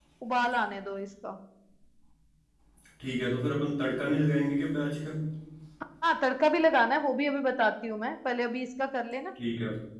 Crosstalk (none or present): none